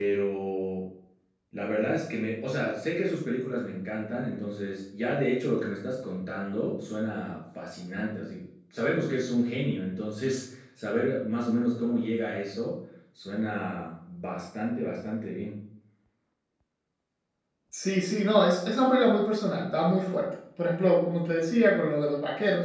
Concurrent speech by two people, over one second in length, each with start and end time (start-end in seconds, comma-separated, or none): none